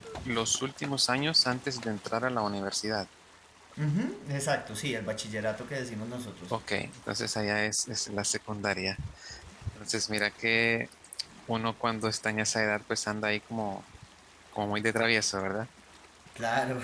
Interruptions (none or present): none